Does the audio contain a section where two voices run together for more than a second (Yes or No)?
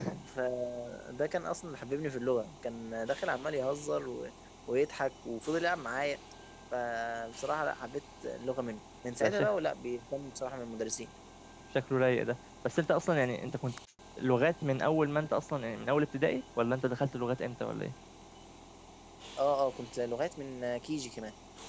No